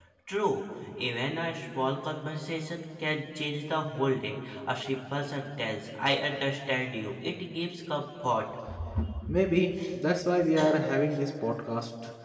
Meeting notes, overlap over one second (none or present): none